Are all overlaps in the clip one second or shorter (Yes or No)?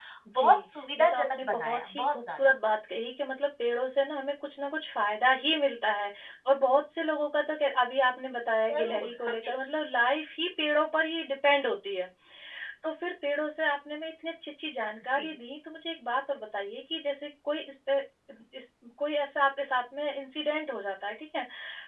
No